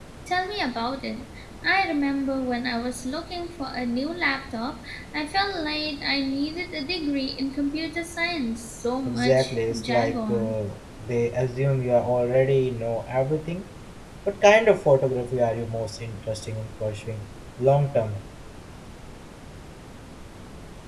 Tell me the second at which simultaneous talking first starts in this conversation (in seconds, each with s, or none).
9.0 s